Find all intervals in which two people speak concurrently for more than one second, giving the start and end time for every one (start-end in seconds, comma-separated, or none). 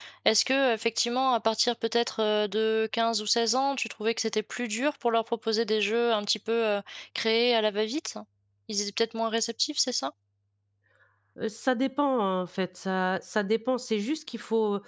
none